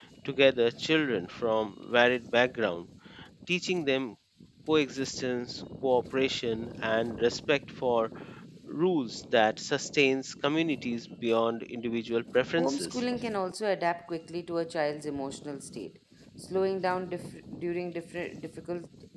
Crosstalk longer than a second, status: none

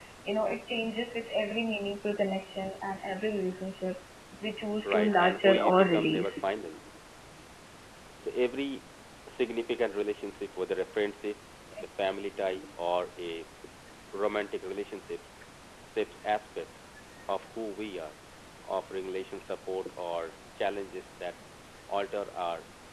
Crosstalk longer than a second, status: present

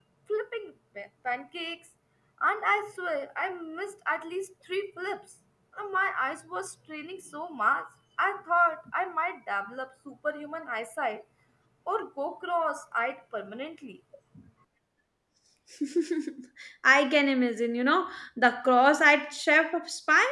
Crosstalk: none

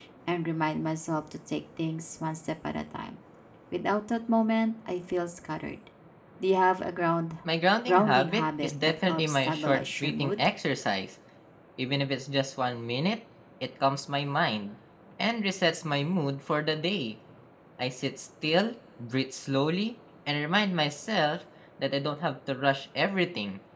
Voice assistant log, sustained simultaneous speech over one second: present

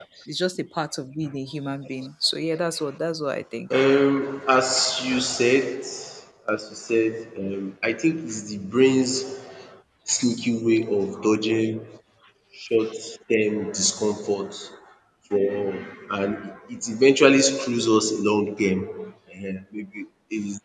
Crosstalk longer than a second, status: none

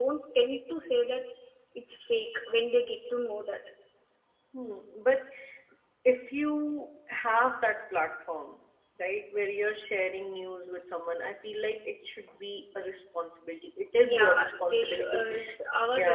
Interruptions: present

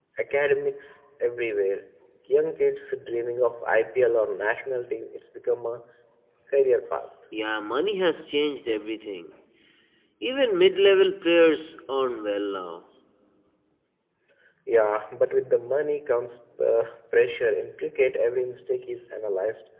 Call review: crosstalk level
none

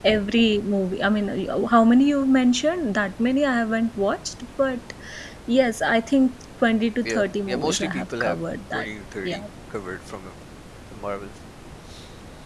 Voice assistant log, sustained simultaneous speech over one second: present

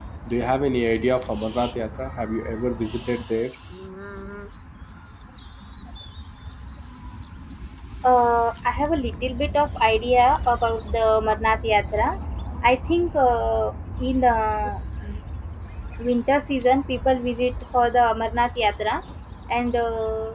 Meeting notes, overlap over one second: none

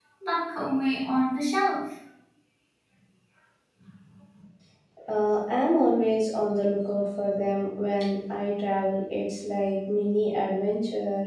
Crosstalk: none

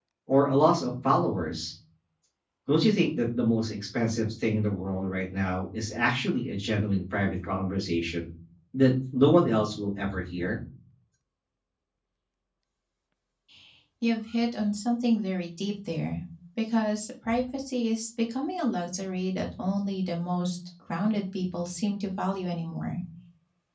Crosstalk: none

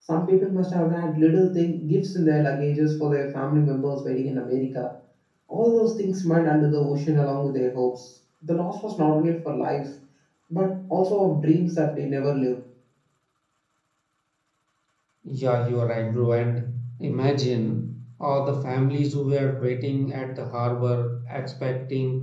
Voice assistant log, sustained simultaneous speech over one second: none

